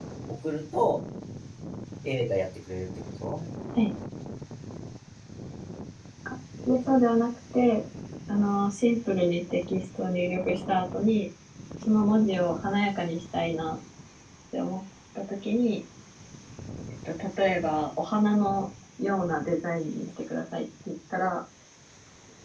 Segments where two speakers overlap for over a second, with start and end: none

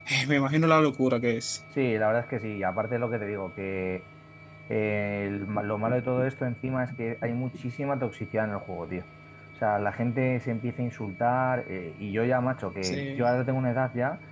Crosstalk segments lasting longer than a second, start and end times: none

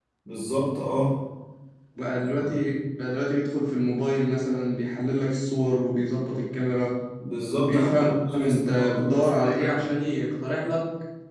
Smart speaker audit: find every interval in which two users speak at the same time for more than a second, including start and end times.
7.6-9.8

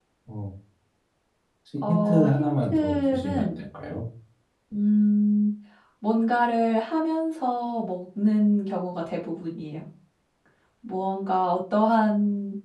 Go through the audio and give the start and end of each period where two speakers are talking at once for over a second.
1.9-3.6

